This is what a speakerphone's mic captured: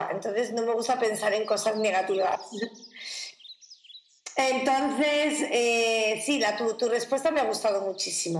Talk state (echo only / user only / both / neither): echo only